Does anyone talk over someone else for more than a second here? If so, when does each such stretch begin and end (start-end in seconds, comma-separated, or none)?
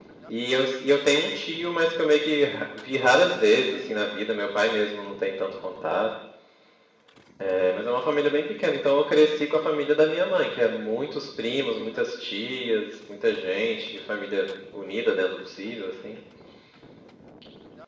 none